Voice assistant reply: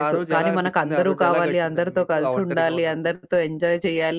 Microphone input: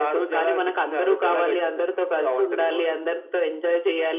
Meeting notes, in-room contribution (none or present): none